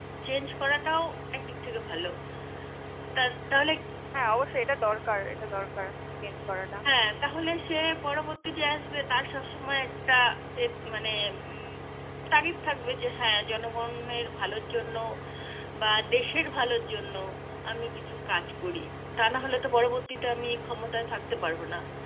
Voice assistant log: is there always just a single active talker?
Yes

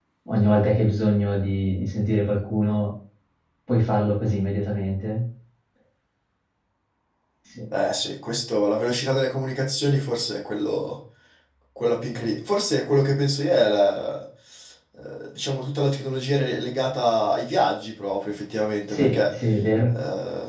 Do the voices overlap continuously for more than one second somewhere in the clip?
No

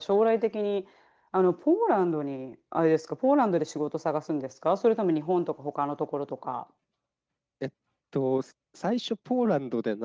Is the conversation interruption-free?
Yes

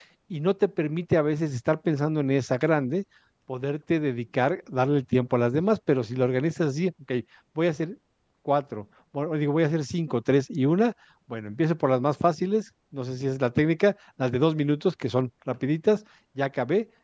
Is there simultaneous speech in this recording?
No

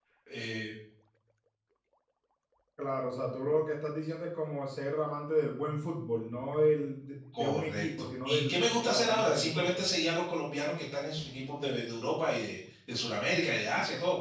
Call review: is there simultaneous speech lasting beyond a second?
Yes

